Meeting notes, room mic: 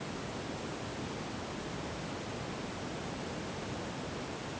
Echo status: none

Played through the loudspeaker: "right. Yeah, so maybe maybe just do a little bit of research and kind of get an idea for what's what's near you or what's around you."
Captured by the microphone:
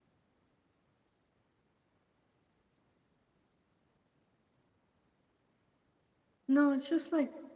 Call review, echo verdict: none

